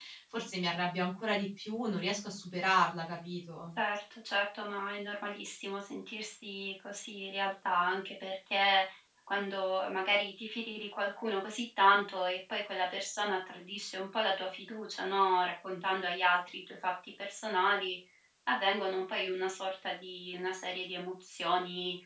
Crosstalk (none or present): none